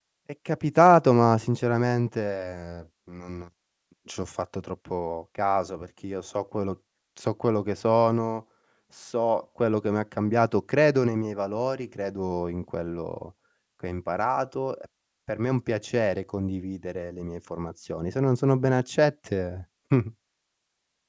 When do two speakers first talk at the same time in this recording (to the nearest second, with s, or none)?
none